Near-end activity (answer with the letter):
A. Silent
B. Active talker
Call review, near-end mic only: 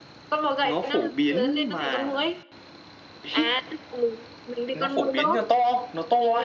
A